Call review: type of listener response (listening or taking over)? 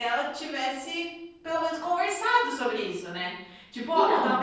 listening